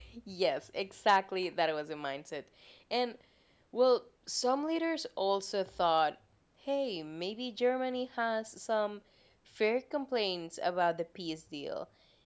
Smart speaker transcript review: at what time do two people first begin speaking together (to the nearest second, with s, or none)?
none